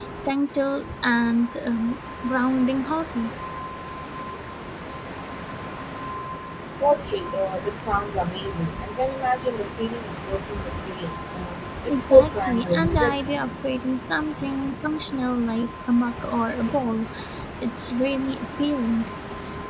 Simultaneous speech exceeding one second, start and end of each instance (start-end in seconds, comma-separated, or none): 11.9-13.1